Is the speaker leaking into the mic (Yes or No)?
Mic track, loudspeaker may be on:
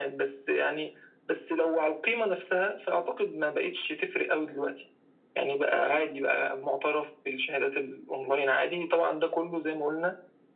Yes